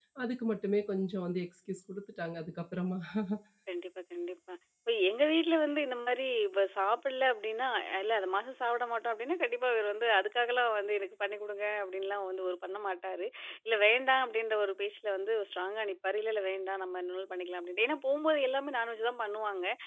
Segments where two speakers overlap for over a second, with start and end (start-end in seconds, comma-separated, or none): none